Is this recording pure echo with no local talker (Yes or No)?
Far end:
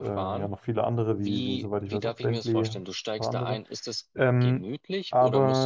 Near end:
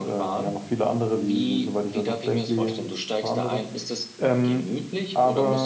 Yes